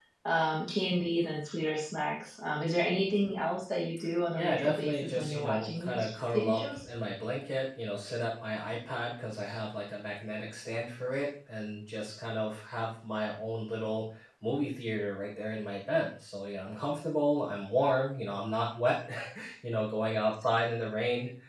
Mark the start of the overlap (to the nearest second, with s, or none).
4 s